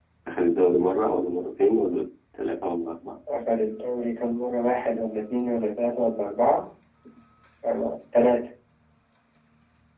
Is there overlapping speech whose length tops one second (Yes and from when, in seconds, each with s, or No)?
No